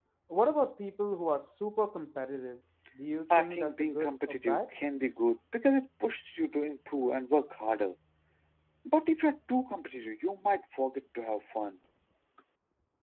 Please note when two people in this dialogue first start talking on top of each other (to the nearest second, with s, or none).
3 s